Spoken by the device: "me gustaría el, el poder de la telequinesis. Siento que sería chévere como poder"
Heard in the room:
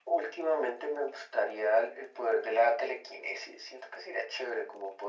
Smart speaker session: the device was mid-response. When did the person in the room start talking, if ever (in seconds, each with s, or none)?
none